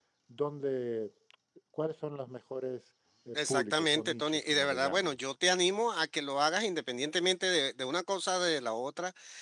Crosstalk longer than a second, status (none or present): present